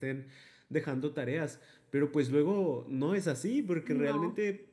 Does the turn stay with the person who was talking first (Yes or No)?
Yes